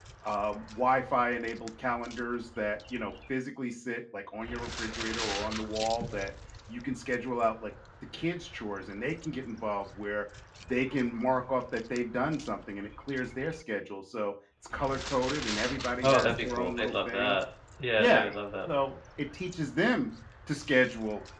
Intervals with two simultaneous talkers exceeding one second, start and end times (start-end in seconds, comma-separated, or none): 16.0-17.4